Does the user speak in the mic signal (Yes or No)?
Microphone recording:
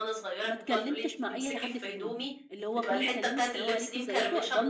Yes